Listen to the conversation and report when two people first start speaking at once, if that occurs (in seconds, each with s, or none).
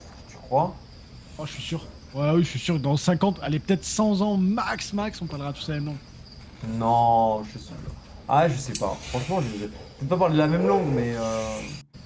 none